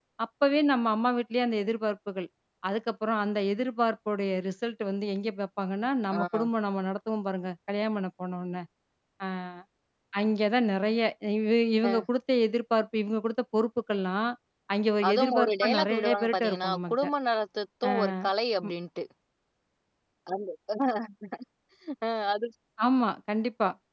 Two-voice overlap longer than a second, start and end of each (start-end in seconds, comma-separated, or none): 15.1-17.1